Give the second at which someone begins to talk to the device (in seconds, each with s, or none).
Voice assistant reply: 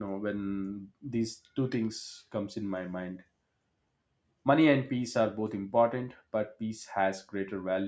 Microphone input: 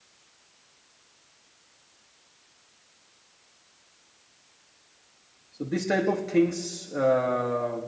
5.5 s